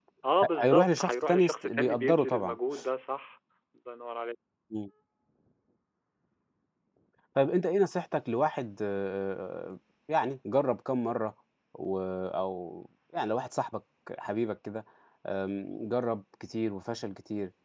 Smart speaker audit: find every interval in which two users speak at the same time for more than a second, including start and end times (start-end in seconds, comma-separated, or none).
0.5-2.6